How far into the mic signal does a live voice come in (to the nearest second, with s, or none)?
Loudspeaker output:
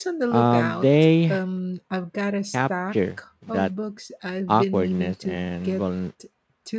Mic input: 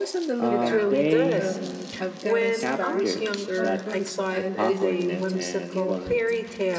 0 s